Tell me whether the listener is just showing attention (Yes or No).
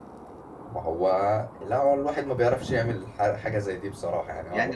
No